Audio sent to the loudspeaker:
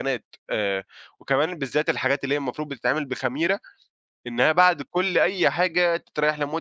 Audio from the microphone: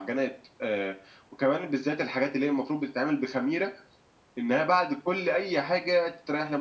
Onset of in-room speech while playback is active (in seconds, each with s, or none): none